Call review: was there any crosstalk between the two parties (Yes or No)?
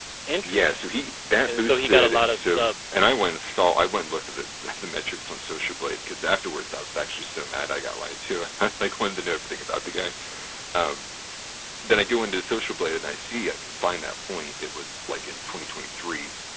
Yes